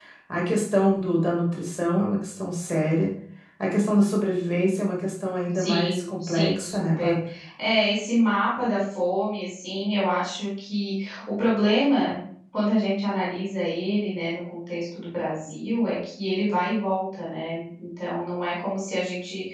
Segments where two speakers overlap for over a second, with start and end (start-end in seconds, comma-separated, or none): 5.5-7.2